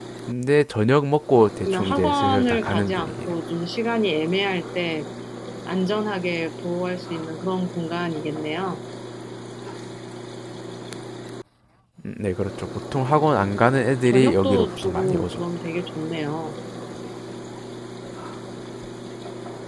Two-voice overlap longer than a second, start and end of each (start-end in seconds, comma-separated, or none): 1.6-3.4, 14.1-15.4